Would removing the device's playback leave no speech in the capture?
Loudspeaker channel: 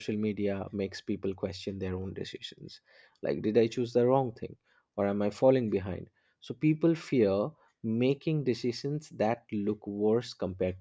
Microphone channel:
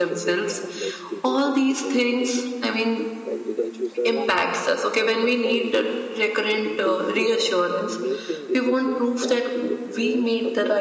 No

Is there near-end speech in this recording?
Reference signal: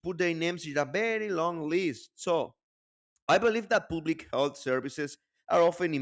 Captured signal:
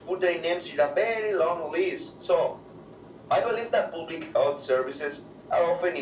No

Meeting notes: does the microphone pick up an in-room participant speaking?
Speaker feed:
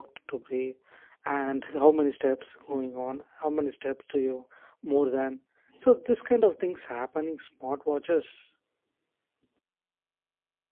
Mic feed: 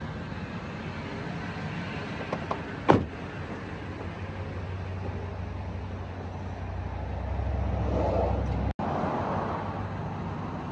No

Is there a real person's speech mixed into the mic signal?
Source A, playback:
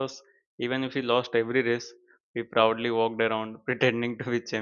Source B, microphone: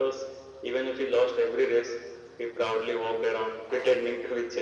No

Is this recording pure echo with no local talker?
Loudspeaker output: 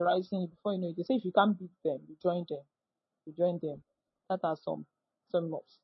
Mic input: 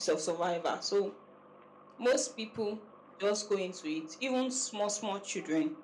No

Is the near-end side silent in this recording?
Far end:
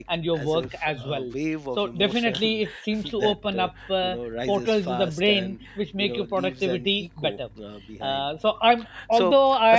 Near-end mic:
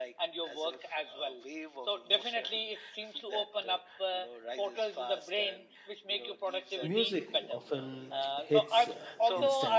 No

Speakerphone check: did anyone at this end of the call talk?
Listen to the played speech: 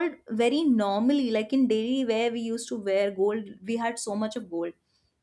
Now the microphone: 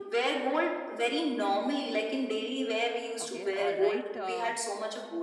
Yes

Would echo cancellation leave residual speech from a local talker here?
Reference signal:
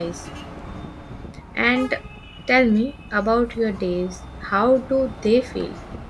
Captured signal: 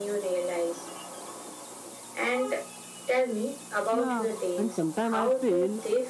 Yes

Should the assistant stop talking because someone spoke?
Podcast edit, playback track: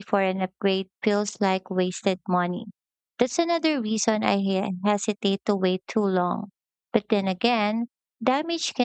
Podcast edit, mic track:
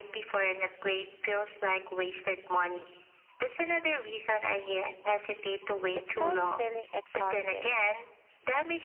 Yes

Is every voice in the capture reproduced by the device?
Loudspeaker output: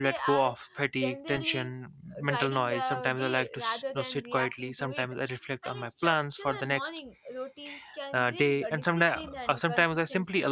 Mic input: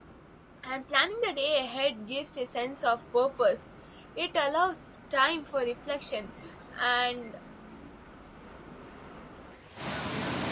No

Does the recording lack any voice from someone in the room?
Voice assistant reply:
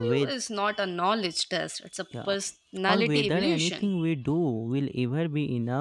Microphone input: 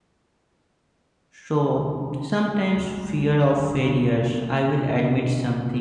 No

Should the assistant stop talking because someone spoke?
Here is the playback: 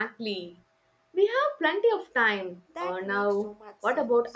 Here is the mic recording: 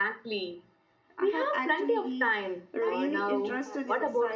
Yes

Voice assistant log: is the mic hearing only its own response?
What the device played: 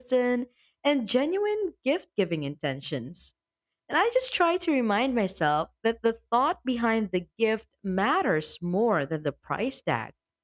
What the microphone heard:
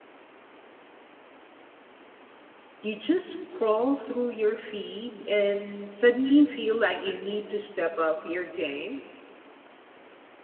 No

